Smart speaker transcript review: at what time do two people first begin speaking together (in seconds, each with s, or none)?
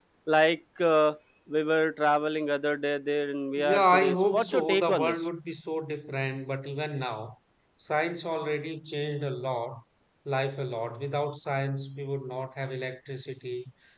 3.6 s